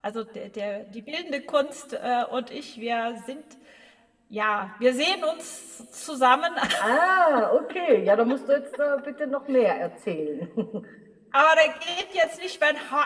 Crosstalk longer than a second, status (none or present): none